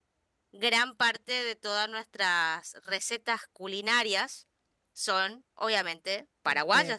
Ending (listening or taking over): taking over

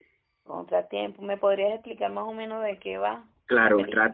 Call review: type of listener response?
taking over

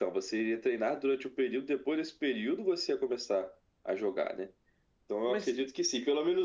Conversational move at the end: listening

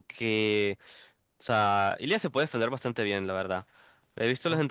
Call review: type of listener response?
listening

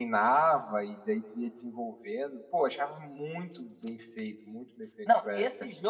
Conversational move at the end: taking over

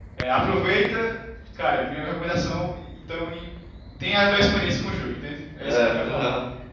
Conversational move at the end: taking over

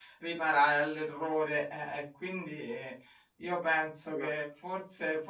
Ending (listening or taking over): listening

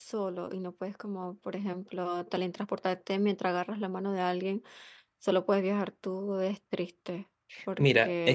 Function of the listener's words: taking over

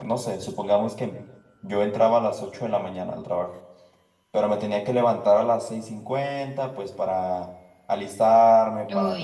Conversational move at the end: listening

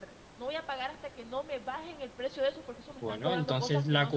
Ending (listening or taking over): taking over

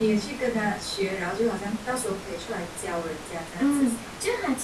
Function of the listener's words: taking over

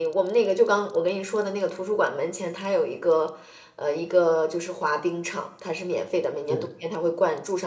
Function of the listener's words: listening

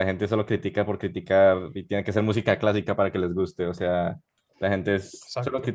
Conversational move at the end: listening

